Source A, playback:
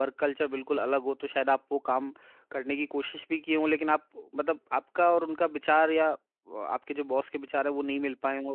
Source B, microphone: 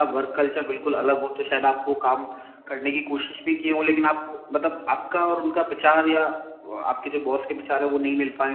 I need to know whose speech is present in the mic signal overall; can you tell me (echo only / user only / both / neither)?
echo only